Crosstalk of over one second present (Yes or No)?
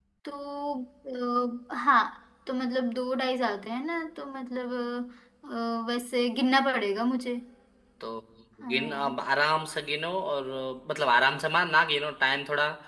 No